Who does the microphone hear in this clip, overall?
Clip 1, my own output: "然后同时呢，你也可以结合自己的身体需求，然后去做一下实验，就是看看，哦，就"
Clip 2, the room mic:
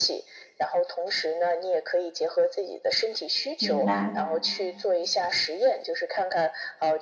both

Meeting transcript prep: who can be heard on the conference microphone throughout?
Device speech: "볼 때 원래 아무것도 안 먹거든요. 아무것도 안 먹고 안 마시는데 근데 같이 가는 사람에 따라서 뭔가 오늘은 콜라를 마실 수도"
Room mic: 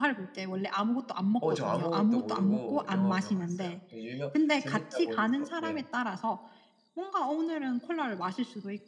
both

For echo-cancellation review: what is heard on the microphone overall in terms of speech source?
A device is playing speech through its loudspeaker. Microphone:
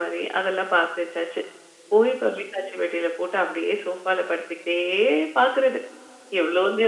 echo only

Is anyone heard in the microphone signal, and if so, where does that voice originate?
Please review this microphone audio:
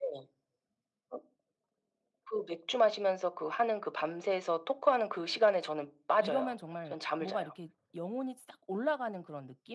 both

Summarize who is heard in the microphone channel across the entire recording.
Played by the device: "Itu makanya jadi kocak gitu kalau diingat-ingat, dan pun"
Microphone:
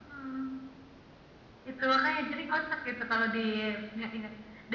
echo only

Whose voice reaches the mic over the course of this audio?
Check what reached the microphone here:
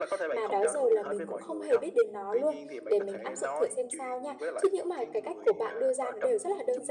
both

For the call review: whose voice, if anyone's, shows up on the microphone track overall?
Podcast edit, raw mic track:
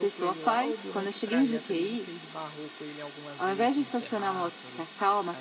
both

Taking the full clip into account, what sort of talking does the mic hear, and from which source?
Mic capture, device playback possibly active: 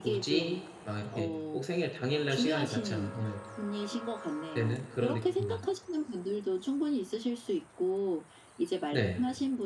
both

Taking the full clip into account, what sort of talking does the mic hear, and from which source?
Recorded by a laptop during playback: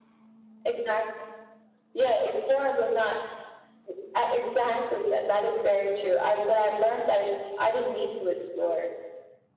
echo only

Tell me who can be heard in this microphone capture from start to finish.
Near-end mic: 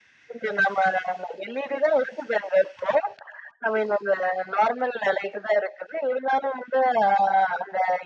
echo only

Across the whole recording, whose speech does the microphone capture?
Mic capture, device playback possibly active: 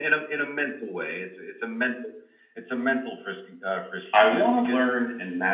both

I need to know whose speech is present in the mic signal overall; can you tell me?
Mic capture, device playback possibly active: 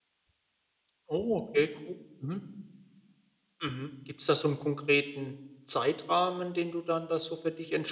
user only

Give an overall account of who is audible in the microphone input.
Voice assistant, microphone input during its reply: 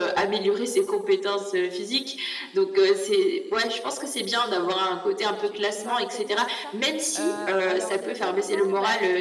both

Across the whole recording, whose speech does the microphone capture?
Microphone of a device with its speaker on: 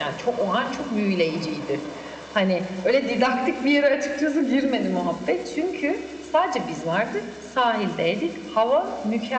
echo only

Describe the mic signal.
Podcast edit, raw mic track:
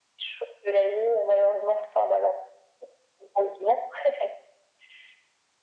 echo only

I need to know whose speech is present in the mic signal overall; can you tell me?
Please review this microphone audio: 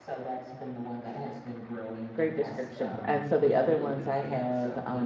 both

